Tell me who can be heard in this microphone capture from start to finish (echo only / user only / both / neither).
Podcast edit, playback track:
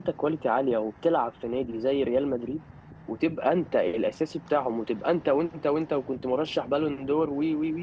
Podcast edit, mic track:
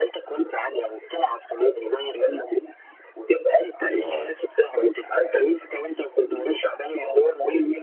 both